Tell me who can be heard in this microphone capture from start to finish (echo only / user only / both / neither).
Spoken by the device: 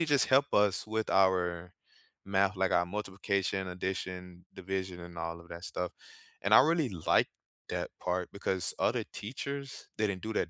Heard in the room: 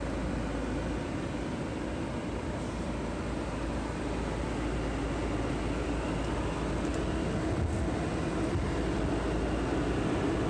neither